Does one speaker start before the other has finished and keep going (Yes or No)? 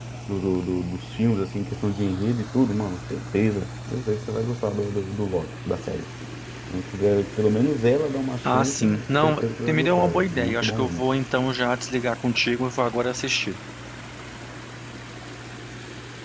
Yes